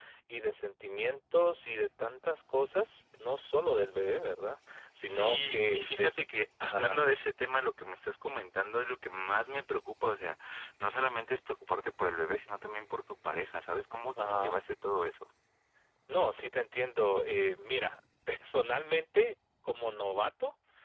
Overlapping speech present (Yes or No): Yes